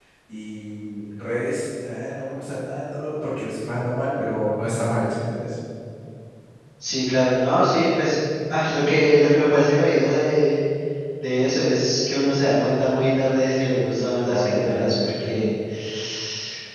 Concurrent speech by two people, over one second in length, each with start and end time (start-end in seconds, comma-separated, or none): 14.3-15.5